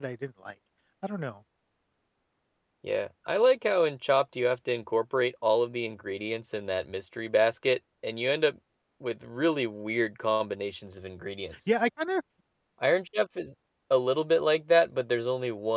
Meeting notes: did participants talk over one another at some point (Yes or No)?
No